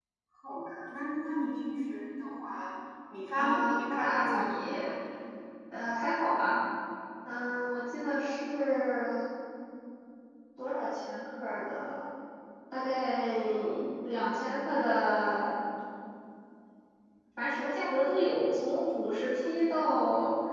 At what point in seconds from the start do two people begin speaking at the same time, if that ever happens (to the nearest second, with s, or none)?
3 s